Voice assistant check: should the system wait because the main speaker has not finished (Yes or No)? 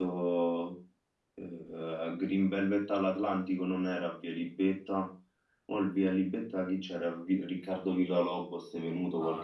No